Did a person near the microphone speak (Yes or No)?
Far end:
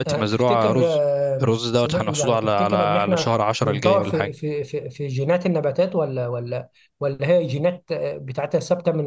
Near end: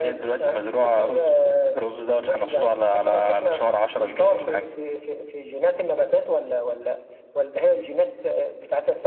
No